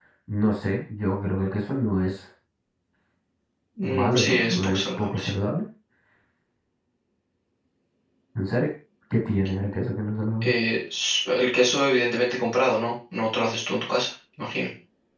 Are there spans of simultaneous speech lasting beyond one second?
Yes, from 3.8 s

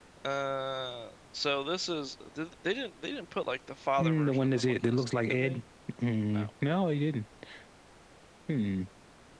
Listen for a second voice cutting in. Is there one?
Yes, from 4.0 s

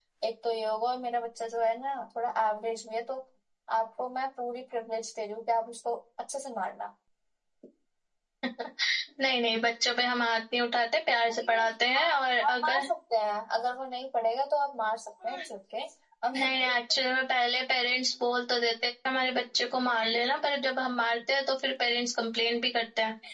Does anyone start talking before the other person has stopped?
Yes, from 11.3 s

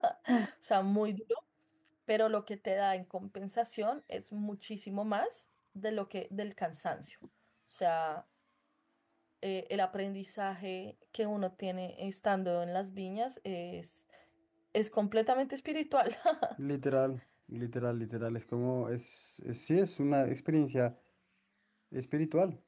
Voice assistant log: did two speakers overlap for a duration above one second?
No

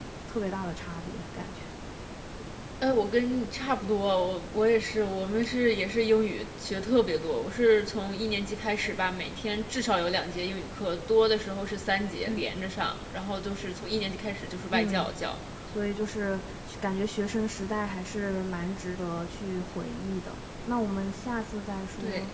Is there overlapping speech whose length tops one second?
No

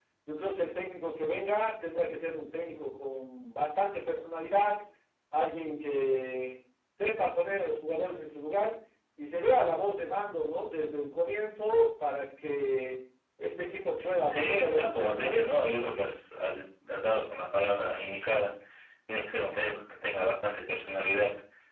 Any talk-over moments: Yes, from 14.3 s

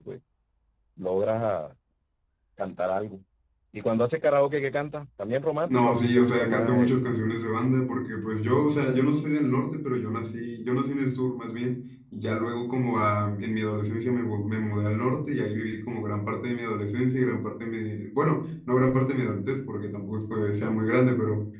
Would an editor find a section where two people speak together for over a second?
Yes, from 5.7 s

